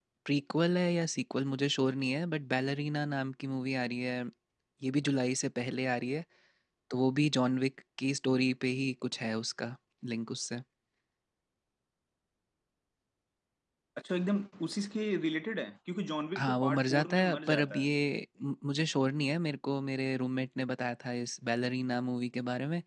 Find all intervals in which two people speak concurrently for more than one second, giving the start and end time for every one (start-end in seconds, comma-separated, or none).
16.4-17.9